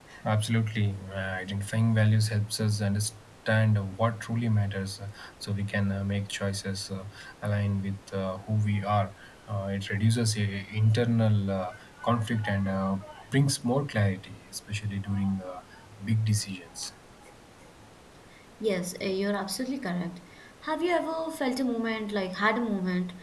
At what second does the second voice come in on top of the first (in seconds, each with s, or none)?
none